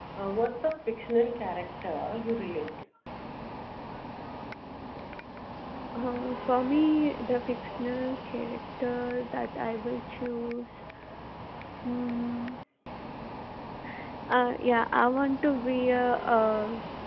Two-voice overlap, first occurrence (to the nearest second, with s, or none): none